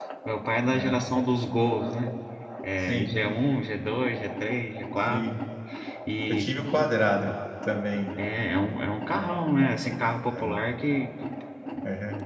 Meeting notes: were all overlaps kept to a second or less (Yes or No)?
Yes